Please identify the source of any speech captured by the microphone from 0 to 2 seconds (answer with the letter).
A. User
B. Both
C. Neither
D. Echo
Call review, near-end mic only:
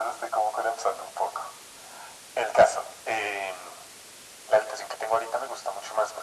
D